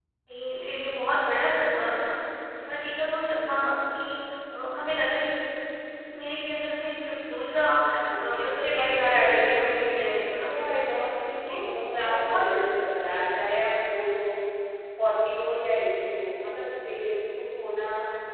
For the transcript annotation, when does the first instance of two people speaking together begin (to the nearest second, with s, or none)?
8 s